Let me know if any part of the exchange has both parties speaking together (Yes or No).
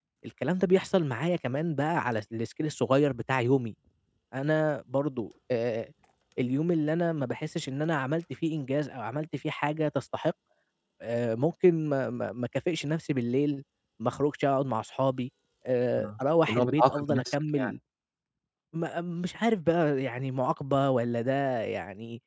Yes